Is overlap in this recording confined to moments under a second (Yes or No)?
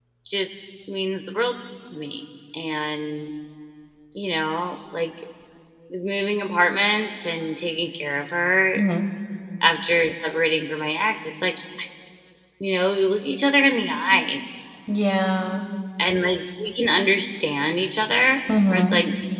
Yes